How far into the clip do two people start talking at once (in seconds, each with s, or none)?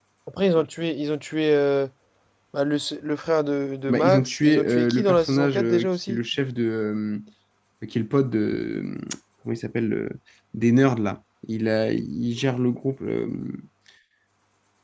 3.9 s